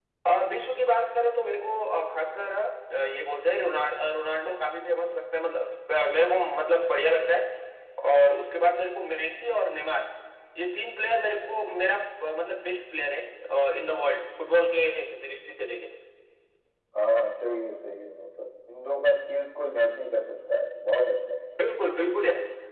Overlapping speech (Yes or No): No